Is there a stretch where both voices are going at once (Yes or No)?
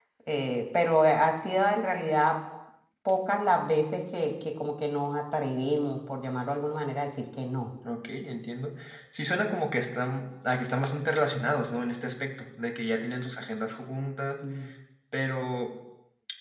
No